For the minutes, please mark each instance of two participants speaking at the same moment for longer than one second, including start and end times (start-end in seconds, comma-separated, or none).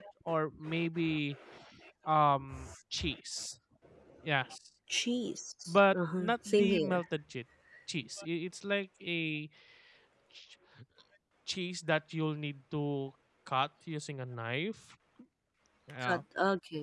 5.7-7.0